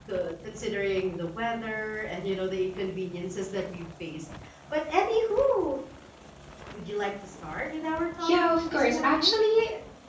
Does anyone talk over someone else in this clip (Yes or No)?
Yes